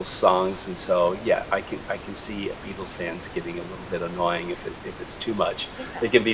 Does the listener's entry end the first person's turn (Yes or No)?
No